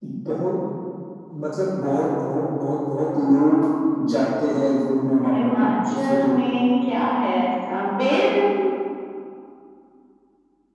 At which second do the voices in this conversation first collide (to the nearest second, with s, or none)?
5 s